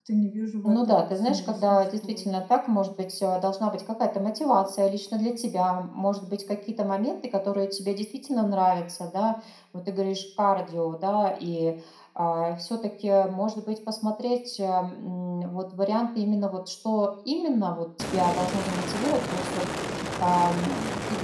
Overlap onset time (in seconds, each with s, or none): 0.6 s